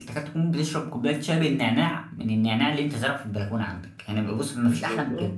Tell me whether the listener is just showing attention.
No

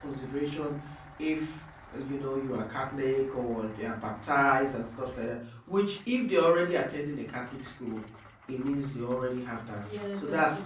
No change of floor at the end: No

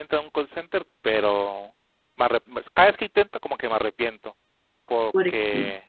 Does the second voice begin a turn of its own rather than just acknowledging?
No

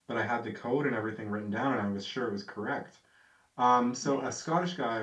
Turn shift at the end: No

